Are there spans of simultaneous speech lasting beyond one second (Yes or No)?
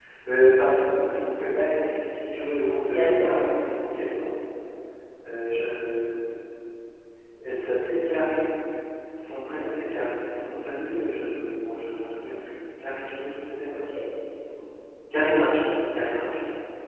Yes